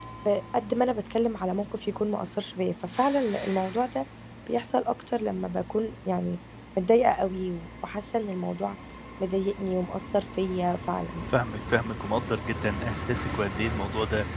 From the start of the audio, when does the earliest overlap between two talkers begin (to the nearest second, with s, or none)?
none